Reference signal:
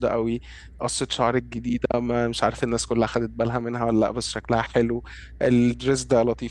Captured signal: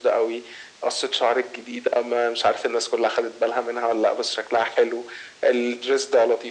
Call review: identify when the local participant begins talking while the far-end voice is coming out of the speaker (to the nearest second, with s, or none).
none